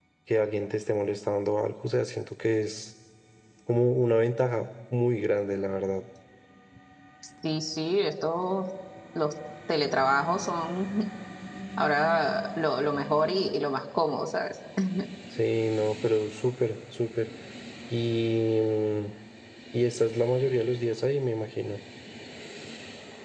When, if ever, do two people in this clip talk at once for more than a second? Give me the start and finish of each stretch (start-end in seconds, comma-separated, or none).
none